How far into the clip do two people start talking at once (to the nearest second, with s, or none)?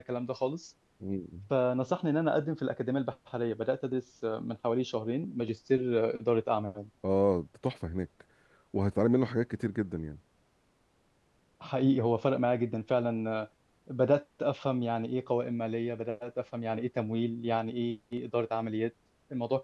none